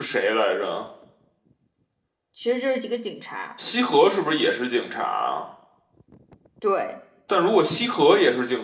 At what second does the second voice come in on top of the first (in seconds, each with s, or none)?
none